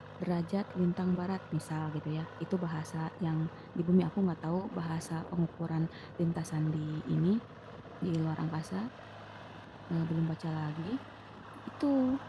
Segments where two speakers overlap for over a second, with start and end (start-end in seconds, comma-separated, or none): none